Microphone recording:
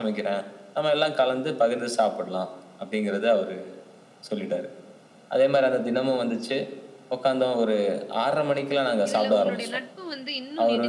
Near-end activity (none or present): present